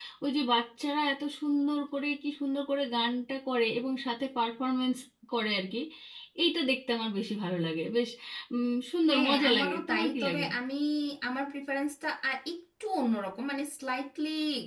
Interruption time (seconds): 9.1 s

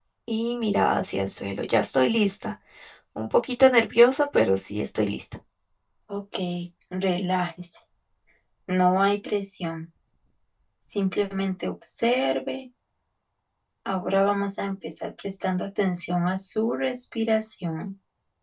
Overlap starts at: none

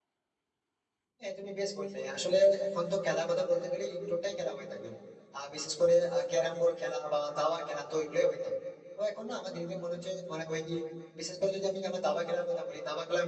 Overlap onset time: none

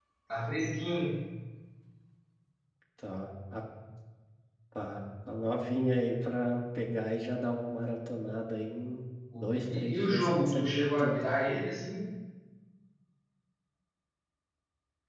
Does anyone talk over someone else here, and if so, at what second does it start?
9.3 s

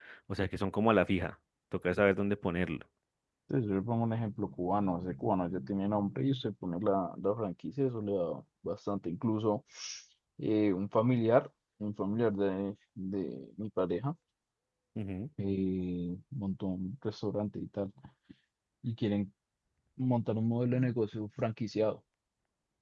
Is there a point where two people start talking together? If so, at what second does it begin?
none

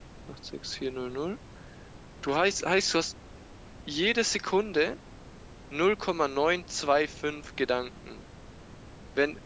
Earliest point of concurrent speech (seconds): none

